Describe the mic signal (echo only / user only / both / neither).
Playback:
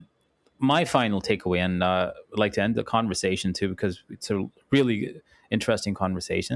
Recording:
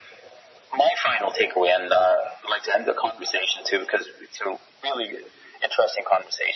echo only